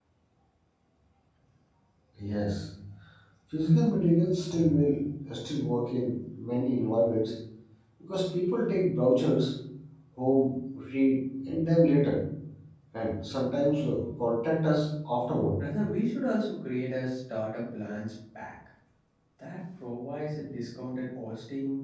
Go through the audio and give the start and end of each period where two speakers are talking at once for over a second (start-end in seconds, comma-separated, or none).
none